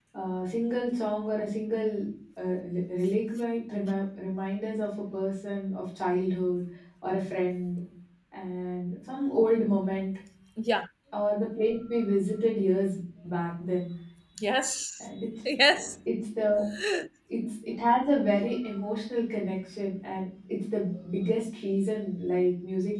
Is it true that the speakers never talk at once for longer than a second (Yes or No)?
Yes